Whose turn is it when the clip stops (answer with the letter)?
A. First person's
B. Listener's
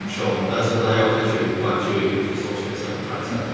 B